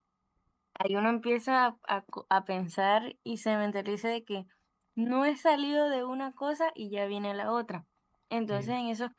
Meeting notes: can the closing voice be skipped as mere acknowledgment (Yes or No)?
Yes